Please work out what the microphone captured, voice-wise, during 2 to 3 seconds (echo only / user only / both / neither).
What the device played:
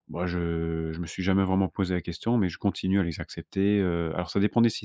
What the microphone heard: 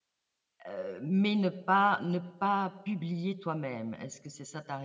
user only